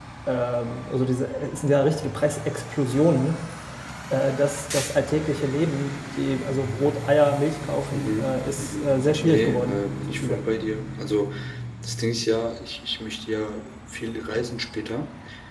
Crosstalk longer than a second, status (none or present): present